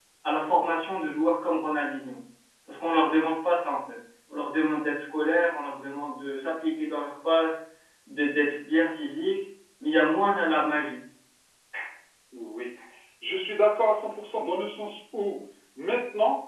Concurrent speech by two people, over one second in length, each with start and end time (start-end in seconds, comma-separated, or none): none